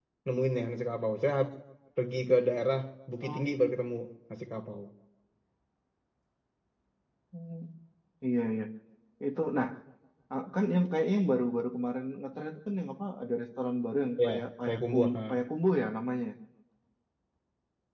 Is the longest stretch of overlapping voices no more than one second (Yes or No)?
No